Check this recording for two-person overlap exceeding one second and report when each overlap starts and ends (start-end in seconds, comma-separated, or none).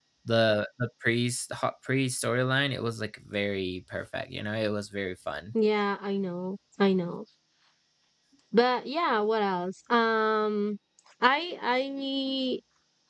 none